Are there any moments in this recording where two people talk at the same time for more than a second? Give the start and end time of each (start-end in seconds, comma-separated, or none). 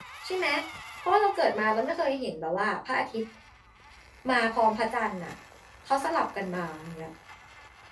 none